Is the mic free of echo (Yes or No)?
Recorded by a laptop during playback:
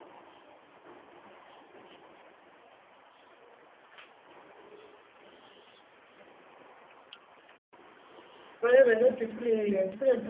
Yes